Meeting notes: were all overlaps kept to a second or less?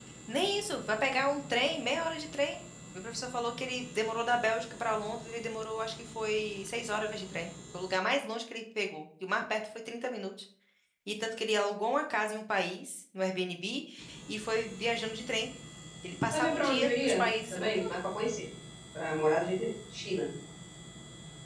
No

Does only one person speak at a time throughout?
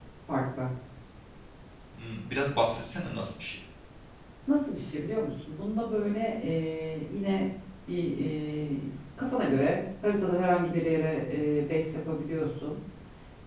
Yes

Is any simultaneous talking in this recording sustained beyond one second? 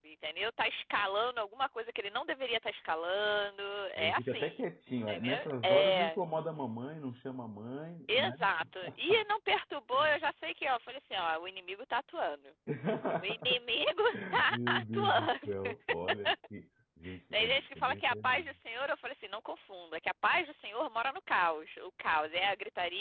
Yes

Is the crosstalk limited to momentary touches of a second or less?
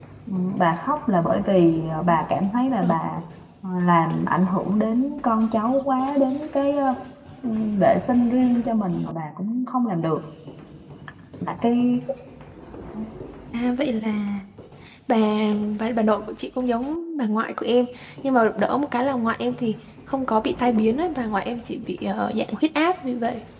Yes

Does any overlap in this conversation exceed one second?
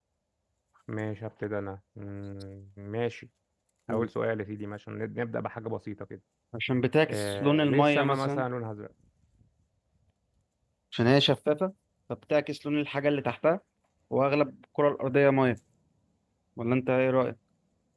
Yes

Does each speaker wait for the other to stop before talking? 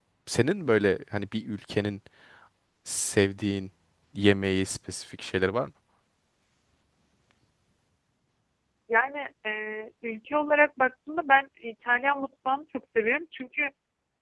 Yes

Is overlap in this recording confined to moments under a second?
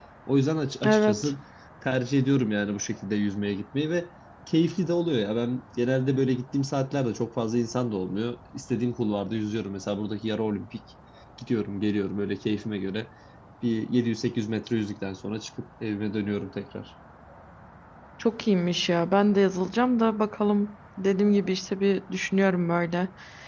Yes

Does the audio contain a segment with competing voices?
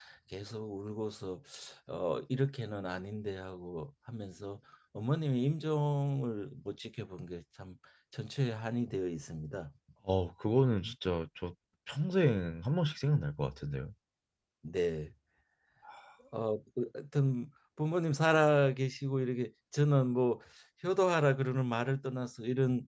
No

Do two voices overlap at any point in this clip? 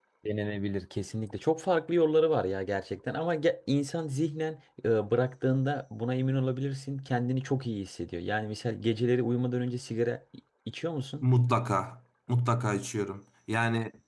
No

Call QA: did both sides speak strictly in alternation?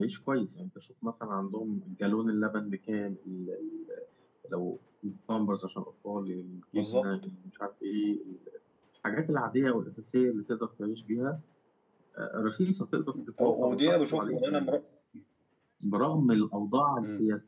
No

